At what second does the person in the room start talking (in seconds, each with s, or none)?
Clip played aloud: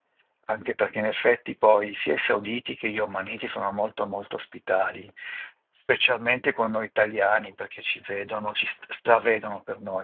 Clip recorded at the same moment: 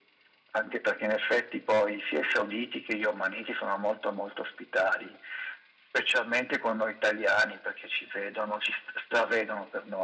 none